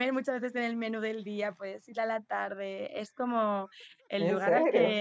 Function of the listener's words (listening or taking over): listening